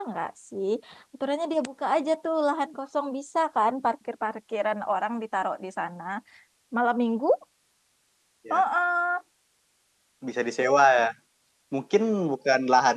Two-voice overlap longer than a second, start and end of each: none

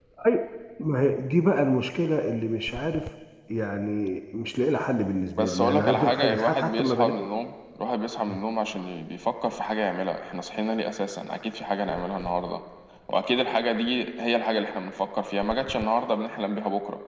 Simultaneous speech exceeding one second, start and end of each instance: 5.4-7.1

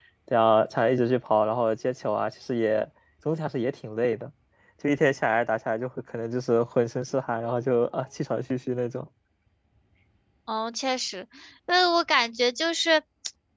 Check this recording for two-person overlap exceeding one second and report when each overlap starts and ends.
none

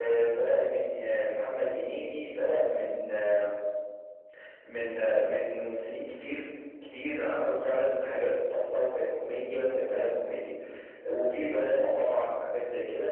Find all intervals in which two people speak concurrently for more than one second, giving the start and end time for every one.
none

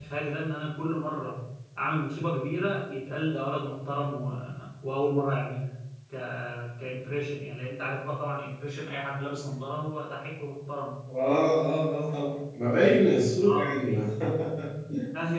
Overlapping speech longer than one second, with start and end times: none

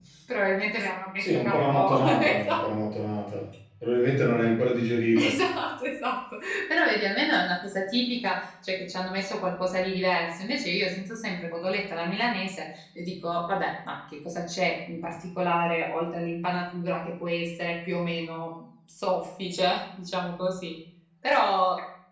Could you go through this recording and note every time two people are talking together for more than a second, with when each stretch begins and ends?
1.2-2.6

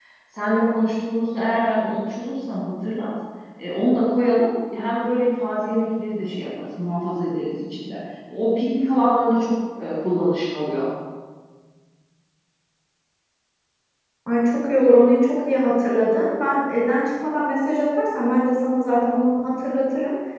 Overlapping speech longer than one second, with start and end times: none

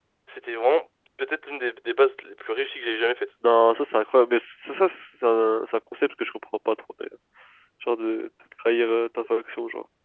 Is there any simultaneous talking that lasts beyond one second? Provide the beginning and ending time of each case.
none

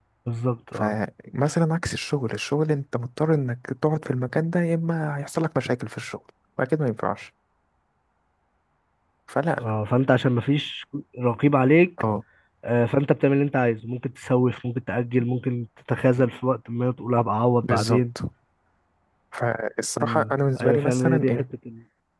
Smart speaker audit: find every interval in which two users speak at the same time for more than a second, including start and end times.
20.0-21.5

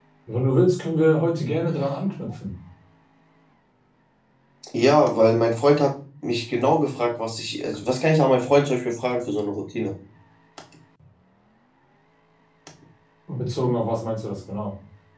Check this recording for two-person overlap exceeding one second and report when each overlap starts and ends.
none

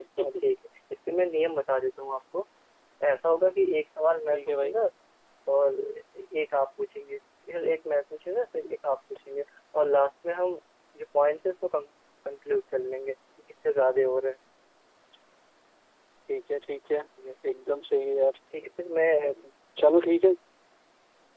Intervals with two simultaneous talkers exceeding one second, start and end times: none

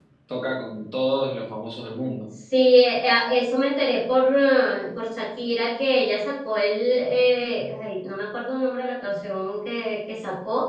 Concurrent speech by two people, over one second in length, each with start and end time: none

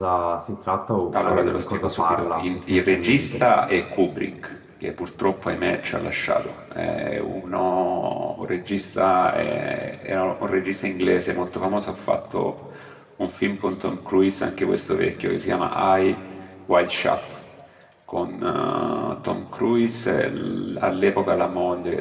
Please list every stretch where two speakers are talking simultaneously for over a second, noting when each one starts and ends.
1.1-3.4

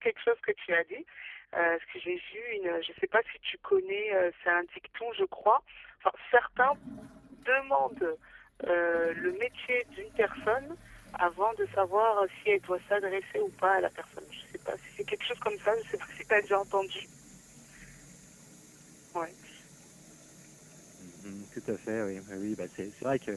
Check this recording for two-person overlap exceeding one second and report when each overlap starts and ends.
none

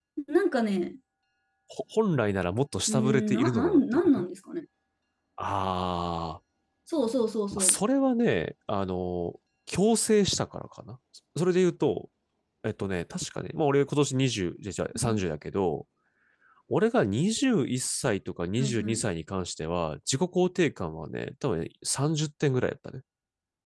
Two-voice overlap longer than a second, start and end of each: 2.9-4.1

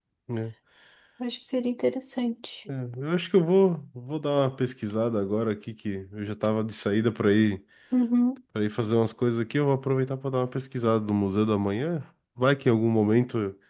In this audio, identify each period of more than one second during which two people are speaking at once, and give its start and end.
none

